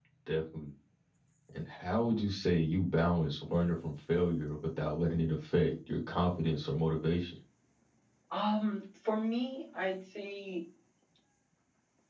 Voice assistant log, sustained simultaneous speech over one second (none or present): none